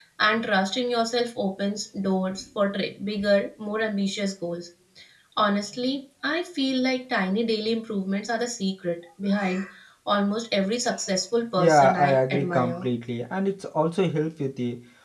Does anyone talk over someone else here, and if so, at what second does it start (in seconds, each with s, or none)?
11.6 s